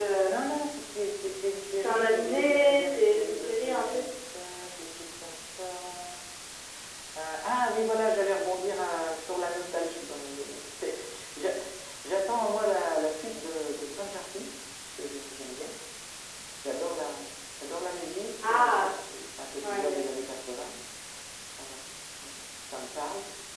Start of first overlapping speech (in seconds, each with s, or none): 1.8 s